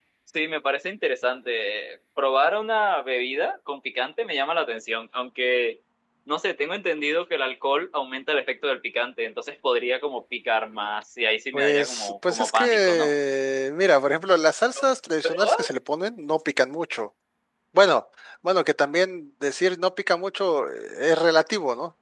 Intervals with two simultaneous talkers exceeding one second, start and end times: 11.5-13.1

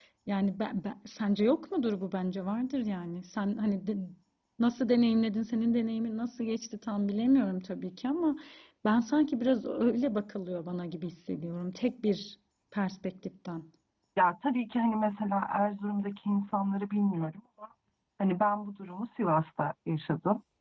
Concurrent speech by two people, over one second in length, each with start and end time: none

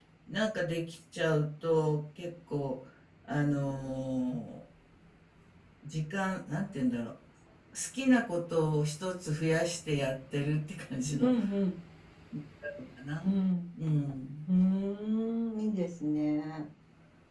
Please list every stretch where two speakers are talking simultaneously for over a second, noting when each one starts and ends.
none

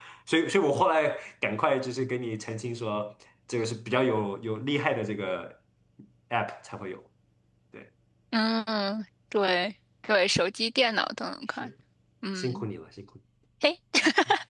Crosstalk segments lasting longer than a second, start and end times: none

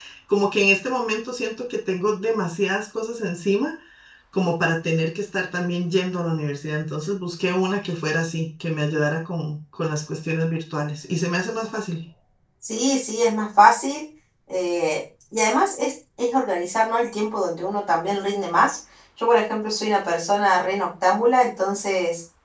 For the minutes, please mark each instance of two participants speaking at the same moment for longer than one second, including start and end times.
none

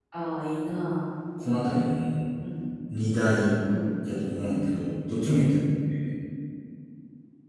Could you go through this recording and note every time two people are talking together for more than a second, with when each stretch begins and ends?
none

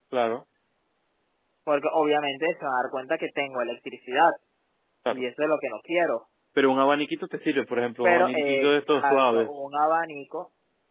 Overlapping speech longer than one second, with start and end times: 8.0-9.6

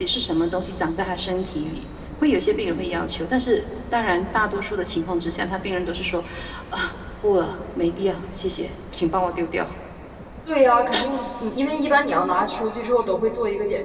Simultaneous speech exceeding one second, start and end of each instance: none

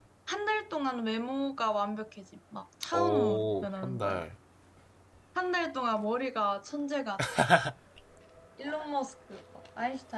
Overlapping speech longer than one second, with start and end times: 2.9-4.2

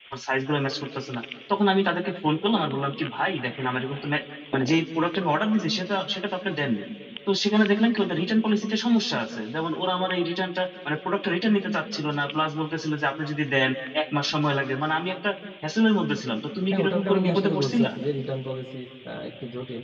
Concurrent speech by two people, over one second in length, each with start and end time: 16.7-17.9

